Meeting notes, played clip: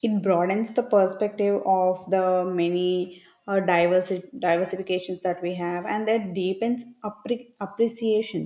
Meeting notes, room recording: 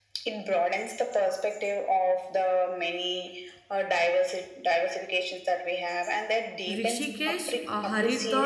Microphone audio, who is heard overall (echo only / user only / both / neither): both